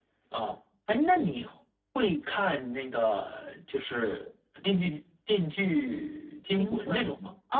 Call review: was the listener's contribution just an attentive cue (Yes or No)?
No